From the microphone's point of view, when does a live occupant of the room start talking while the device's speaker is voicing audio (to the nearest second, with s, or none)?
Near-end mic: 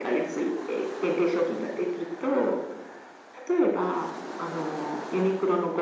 none